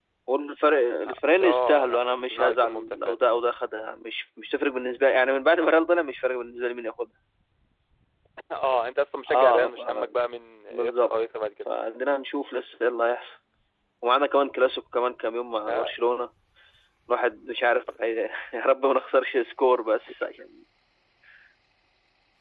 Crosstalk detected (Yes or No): Yes